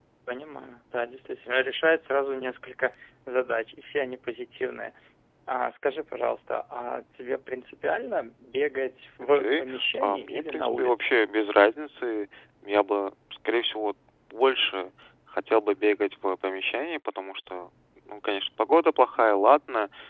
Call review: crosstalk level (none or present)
present